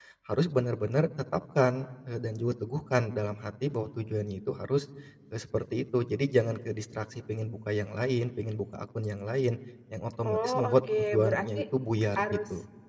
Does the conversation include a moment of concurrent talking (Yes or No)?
Yes